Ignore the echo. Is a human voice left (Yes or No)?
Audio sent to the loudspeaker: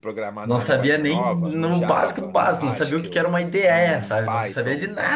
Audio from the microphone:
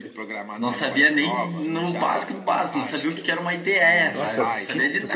Yes